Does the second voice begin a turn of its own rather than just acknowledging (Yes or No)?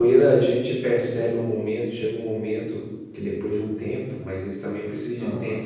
No